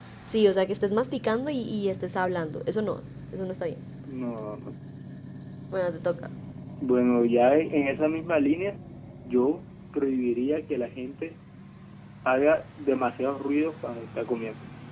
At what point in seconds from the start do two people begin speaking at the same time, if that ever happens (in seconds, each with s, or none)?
none